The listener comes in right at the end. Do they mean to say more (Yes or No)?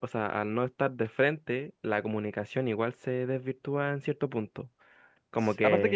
Yes